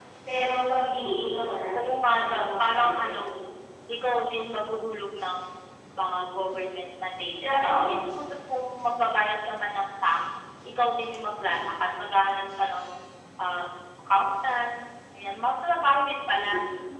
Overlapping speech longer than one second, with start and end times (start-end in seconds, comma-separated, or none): 1.8-3.1